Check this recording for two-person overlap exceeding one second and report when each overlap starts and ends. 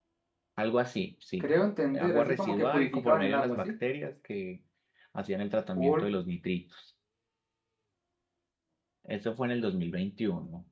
1.9-3.7

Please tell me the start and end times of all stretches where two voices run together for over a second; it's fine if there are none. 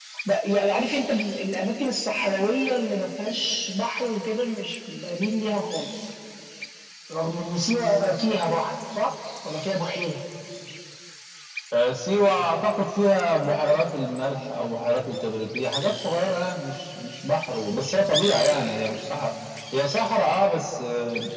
none

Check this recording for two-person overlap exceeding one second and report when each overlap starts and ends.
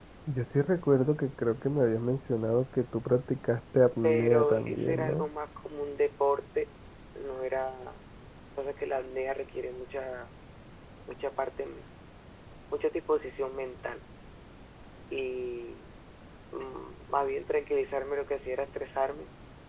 4.0-5.3

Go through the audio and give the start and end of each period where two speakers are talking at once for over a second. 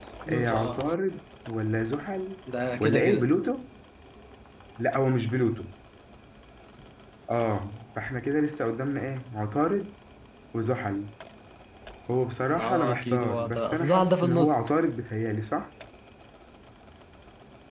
12.6-14.7

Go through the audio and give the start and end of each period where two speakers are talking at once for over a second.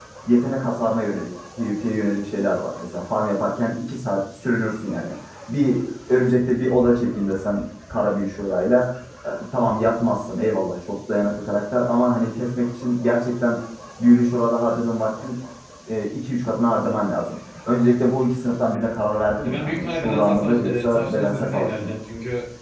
19.4-22.0

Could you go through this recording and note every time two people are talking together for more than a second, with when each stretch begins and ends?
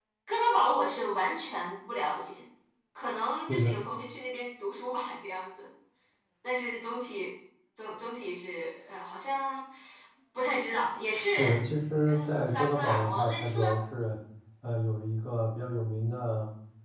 12.1-13.6

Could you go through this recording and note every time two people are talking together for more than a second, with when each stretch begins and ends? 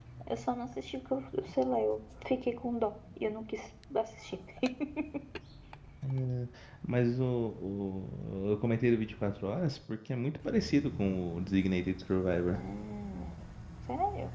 none

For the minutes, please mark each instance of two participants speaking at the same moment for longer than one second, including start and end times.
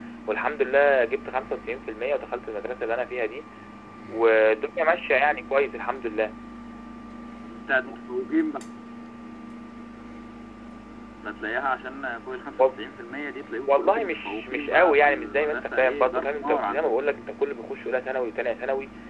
13.7-16.9

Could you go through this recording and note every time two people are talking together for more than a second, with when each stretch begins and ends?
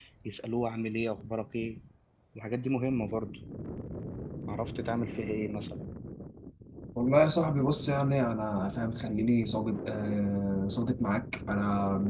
none

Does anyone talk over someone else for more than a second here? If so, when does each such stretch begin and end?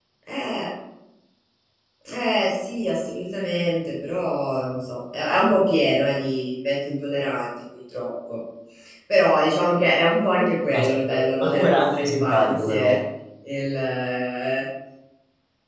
10.7-12.9

